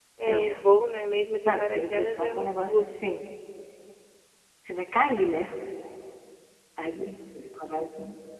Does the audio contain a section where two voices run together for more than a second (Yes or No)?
Yes